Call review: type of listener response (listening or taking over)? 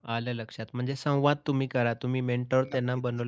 listening